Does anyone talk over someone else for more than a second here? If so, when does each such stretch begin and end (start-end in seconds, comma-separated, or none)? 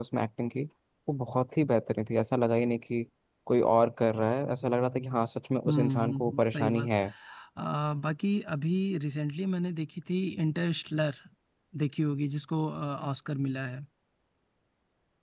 5.7-6.9